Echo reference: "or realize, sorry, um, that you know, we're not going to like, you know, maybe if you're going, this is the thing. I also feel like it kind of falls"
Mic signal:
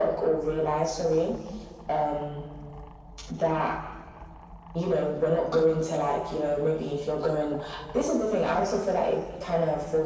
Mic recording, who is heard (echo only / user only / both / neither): echo only